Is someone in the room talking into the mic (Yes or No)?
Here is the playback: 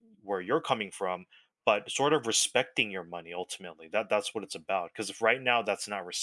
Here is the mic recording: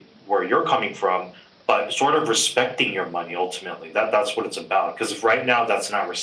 No